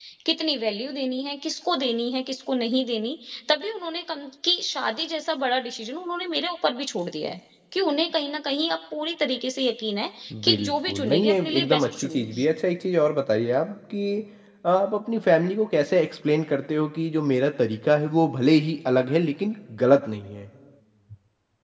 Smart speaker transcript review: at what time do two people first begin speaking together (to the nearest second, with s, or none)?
10 s